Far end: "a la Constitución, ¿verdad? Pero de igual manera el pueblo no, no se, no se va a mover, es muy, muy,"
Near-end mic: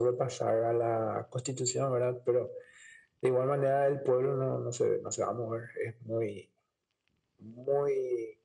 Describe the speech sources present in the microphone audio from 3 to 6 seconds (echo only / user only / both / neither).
echo only